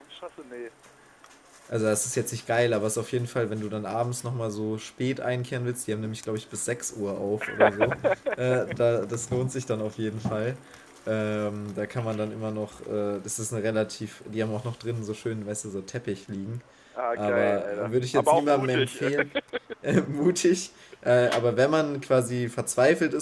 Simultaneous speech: Yes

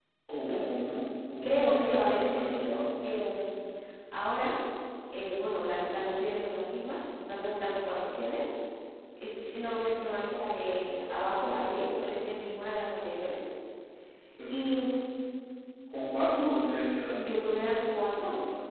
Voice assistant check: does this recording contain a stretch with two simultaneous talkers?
Yes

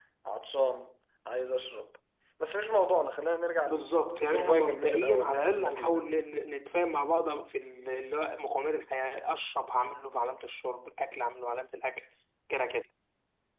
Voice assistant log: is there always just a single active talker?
No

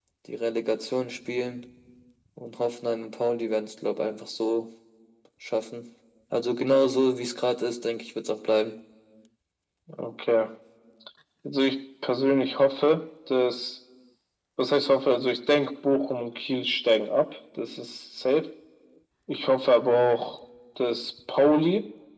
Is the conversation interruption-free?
Yes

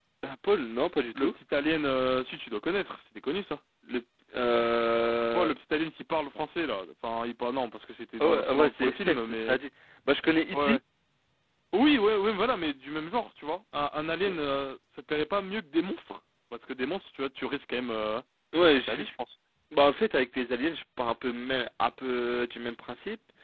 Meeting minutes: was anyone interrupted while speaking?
Yes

